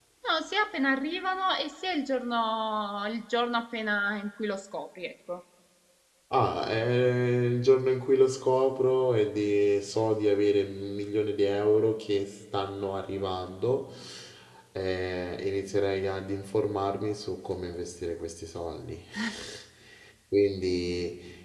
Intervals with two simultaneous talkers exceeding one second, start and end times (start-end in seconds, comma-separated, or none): none